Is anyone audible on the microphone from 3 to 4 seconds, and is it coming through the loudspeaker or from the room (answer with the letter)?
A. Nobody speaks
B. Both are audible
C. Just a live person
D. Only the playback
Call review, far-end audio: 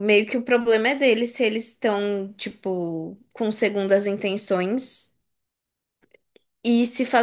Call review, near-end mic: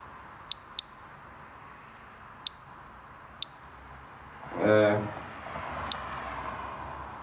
A